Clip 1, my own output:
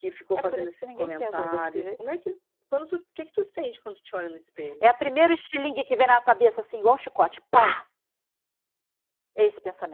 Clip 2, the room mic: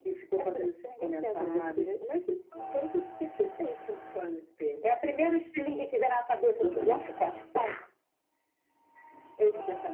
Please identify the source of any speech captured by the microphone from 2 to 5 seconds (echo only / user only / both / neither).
echo only